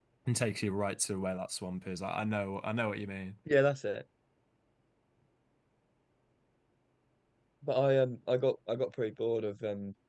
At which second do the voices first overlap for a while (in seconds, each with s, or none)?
none